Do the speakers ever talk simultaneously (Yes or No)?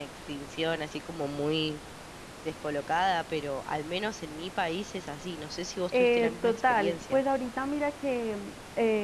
Yes